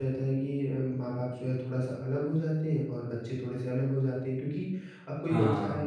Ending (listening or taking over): listening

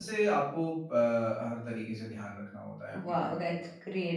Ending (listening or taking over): taking over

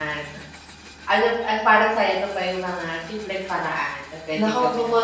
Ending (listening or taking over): taking over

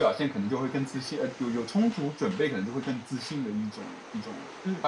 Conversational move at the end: taking over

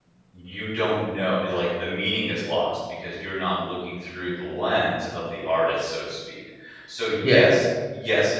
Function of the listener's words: listening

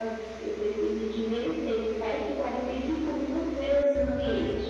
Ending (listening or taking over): taking over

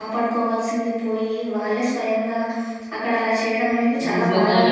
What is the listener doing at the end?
taking over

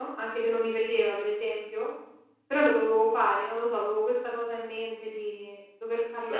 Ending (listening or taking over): taking over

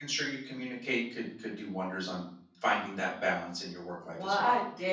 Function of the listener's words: taking over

